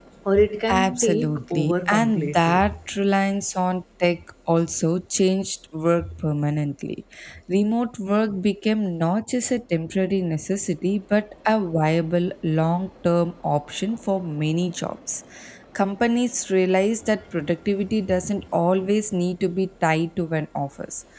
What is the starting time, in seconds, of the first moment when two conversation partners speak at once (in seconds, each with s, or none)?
0.7 s